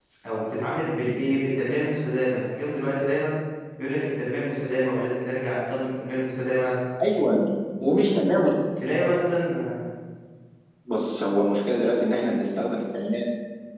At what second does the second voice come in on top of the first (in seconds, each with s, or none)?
none